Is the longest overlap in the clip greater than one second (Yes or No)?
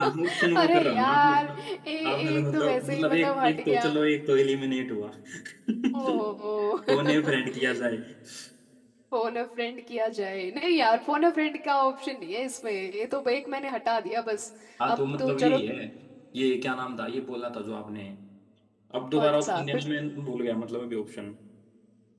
Yes